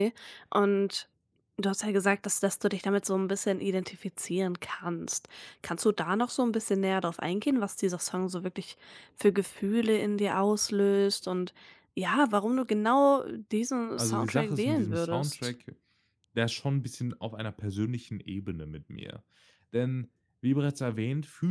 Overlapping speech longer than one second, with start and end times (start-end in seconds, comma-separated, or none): 14.0-15.5